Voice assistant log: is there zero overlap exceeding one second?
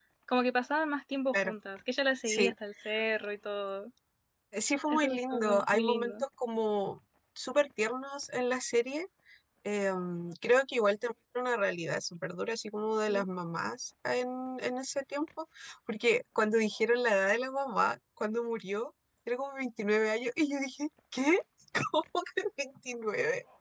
No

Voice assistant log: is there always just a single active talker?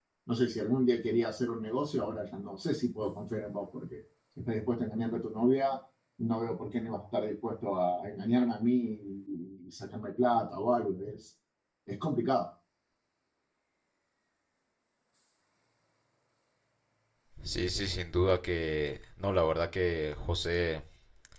Yes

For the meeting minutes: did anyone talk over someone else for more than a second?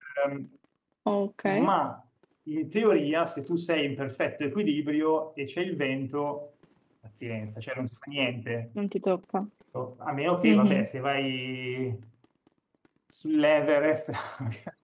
No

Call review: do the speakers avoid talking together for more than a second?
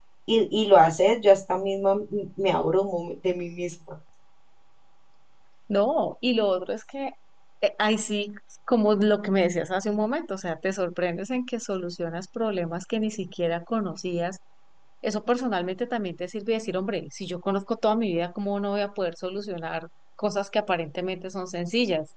Yes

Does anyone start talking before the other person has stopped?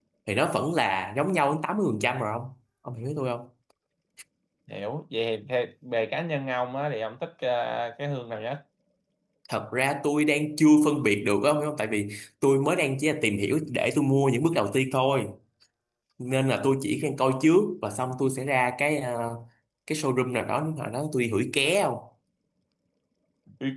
No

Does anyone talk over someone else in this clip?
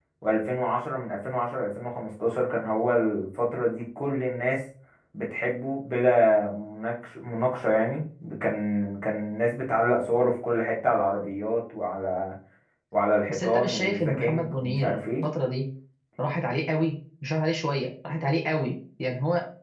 Yes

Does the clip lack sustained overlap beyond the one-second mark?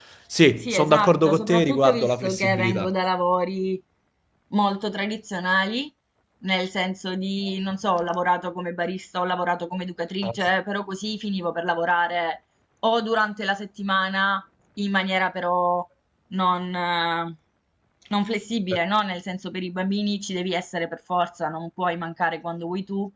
No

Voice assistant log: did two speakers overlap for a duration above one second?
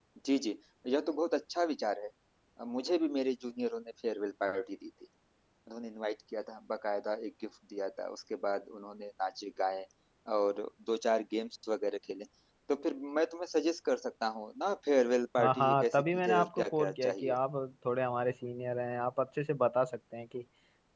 Yes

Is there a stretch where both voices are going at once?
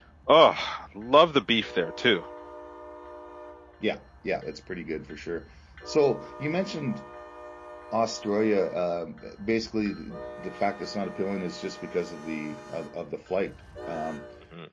No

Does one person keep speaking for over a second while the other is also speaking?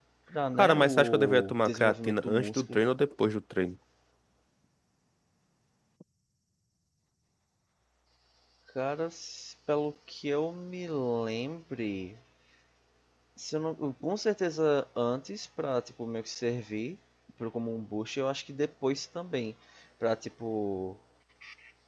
Yes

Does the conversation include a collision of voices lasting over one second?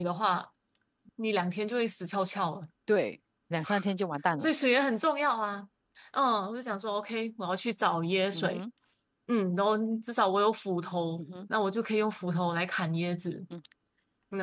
No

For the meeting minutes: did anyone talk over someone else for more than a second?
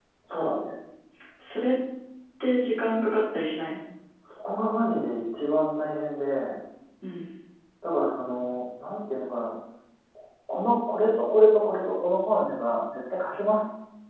No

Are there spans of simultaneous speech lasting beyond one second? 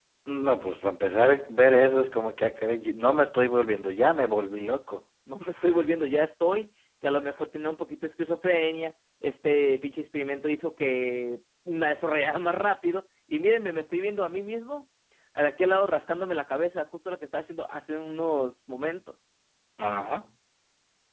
No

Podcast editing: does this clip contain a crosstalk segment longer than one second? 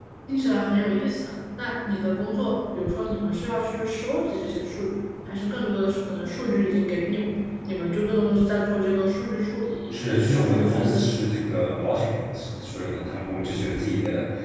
Yes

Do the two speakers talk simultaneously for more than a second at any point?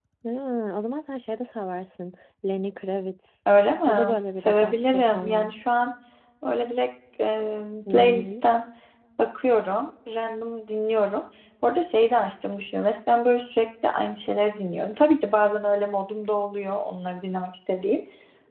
Yes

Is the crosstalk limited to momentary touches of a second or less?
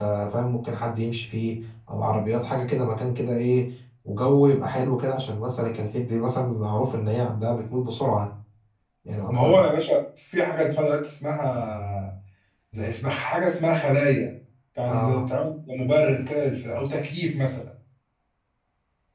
Yes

